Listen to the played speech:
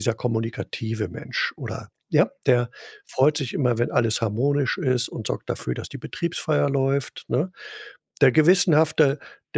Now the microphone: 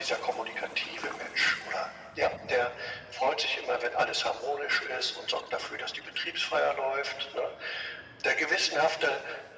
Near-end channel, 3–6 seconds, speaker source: echo only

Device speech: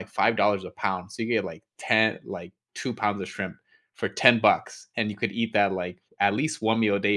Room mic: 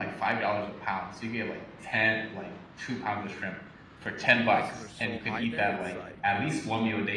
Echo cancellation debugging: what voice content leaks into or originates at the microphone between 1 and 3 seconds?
echo only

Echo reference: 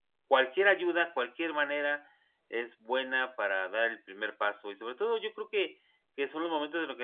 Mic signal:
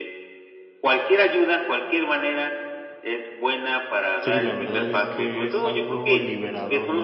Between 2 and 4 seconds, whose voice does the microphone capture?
echo only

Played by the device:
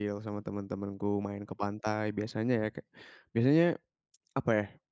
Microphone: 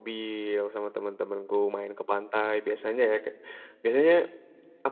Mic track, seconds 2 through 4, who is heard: echo only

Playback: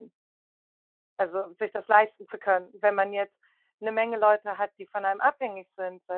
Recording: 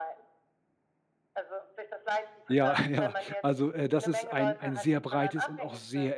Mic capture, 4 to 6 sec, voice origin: both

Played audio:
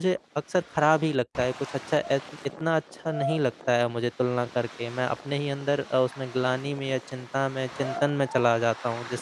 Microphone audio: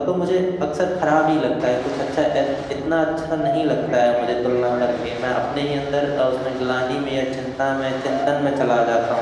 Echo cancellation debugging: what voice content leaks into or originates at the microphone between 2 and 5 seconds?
both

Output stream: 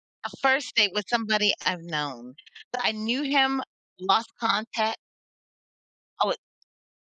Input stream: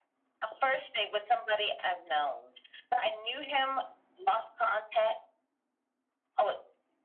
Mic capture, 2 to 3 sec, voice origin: echo only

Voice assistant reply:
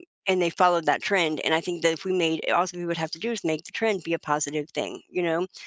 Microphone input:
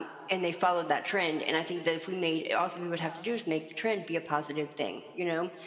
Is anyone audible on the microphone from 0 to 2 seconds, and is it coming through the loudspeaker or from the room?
echo only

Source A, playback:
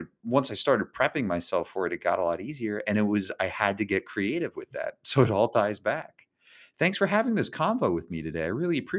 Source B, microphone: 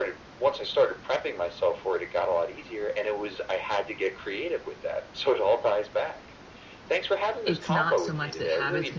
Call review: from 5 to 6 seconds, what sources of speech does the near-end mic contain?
echo only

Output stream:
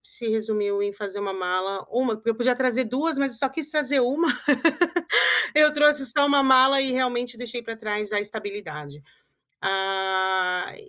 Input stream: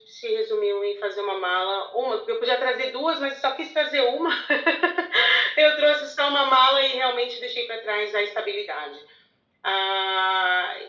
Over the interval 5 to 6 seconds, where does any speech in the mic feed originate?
echo only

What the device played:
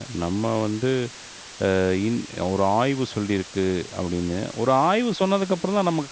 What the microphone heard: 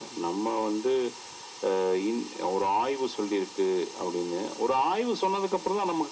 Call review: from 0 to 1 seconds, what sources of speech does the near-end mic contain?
echo only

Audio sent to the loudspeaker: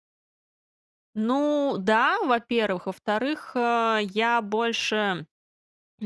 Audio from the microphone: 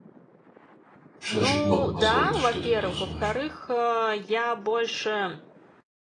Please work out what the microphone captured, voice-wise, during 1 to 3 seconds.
both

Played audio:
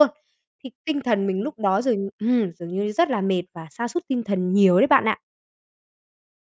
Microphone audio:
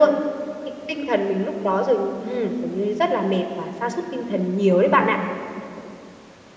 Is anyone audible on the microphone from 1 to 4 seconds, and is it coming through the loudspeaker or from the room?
echo only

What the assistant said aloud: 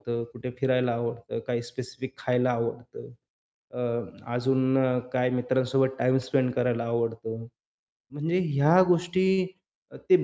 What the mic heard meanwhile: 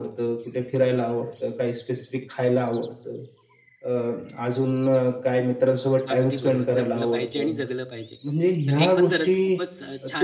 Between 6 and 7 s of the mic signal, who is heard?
both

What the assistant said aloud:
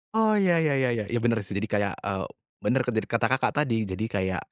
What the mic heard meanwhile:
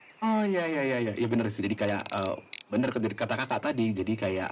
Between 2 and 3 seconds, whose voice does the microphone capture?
echo only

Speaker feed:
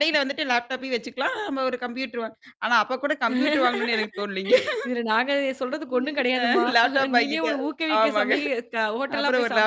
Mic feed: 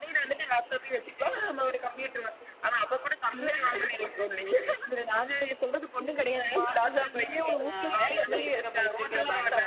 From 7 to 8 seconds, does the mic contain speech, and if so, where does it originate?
both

